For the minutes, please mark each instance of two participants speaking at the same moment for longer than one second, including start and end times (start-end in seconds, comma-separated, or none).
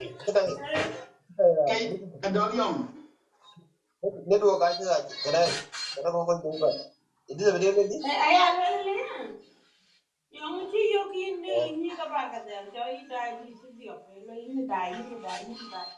none